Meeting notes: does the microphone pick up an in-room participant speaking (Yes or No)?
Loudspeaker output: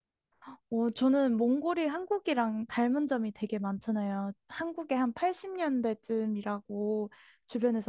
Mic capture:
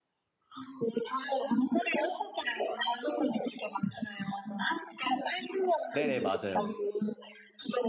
Yes